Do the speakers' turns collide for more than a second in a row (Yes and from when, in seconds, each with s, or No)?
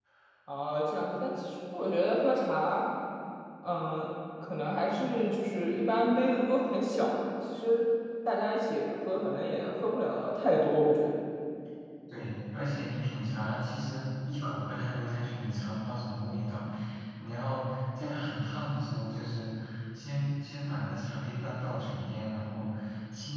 No